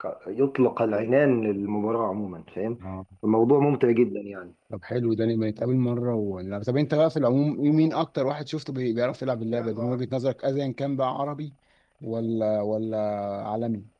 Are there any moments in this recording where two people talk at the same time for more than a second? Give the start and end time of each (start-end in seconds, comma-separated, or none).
none